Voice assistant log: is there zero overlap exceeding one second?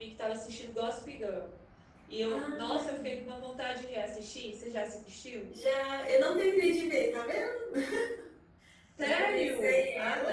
No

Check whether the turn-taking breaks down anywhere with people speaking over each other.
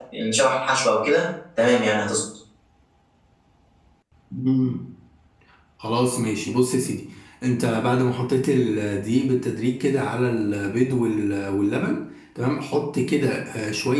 No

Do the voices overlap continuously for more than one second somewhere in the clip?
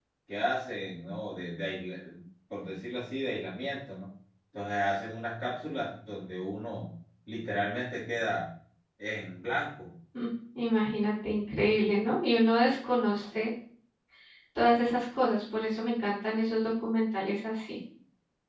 No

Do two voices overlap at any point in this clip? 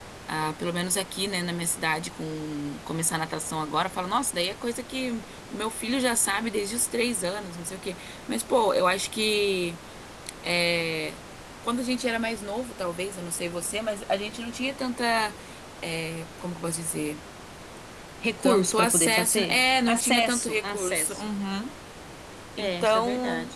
Yes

